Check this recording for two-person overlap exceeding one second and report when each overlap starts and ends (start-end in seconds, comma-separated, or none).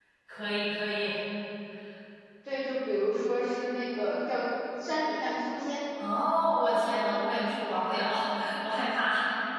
none